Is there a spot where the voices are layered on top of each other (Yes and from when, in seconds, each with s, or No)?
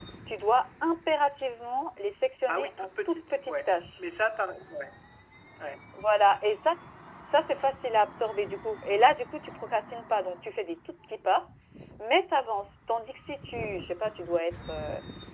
Yes, from 2.5 s